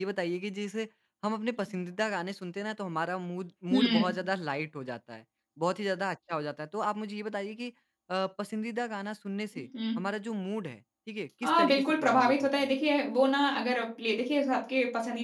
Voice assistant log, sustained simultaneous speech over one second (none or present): present